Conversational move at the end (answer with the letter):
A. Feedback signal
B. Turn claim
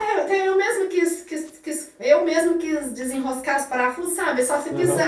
A